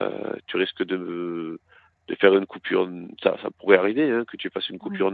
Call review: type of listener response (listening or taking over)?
listening